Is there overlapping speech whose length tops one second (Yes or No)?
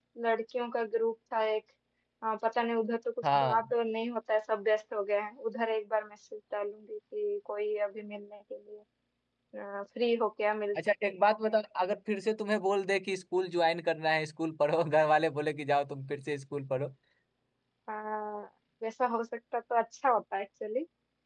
No